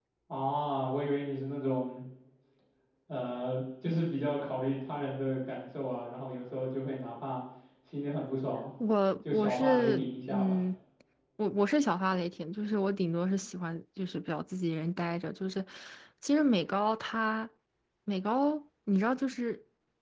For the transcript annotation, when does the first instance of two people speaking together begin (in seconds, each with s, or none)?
9.3 s